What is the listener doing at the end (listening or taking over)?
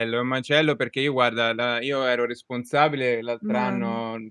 listening